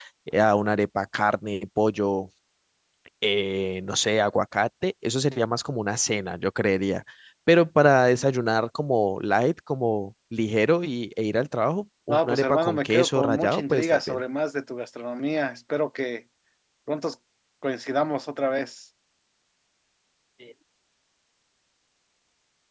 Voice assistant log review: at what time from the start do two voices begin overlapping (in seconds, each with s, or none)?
12.1 s